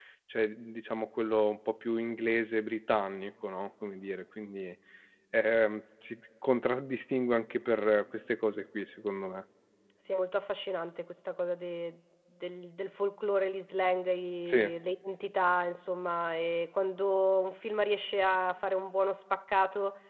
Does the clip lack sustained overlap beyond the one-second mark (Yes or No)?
Yes